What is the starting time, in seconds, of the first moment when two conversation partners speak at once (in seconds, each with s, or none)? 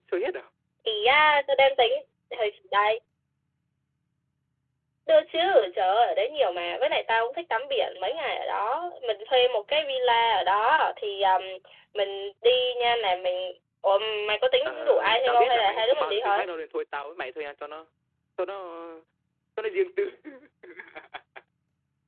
14.7 s